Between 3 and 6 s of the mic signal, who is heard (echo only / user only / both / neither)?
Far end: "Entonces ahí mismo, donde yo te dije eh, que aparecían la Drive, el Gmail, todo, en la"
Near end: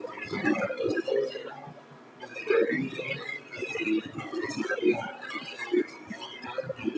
echo only